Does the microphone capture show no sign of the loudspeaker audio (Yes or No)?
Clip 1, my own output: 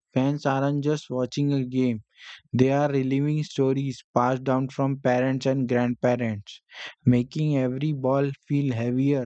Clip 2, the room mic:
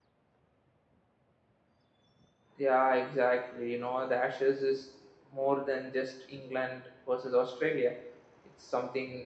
Yes